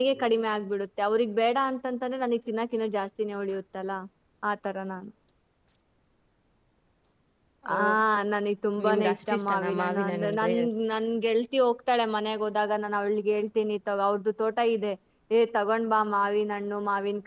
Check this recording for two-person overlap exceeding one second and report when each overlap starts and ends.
8.9-10.4

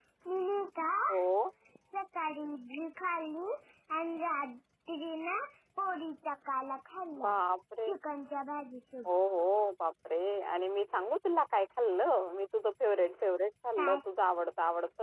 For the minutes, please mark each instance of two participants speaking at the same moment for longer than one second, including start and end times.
none

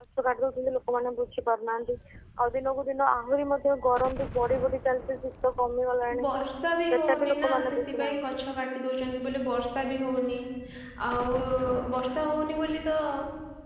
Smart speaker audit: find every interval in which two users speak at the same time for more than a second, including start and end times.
6.9-8.2

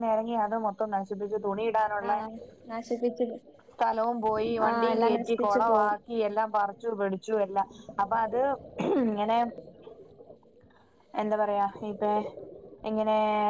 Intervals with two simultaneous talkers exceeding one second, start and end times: 4.7-5.9

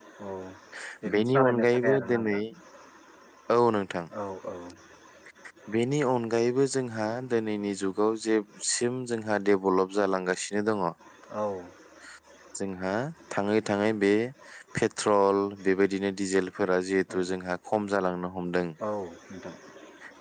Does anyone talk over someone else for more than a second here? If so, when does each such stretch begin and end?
1.1-2.4

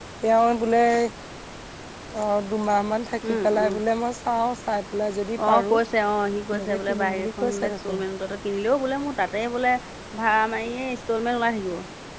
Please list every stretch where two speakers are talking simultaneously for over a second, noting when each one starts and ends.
6.5-8.0

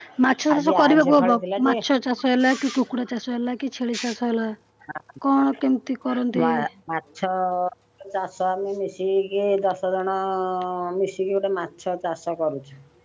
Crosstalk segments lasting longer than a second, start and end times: 0.6-1.8

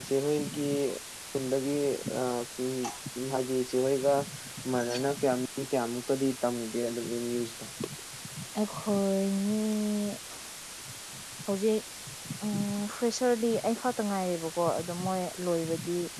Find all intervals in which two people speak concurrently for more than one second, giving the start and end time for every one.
none

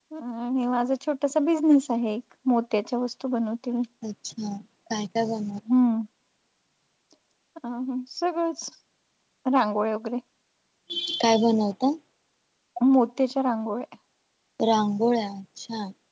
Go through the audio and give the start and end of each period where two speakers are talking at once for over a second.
none

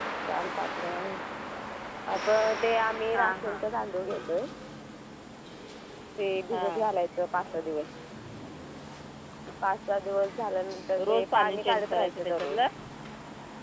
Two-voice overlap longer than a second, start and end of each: 11.1-12.6

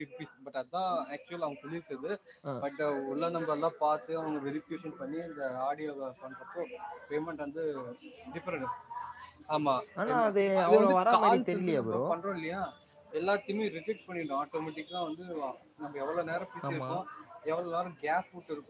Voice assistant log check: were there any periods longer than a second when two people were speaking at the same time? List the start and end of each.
10.0-12.0

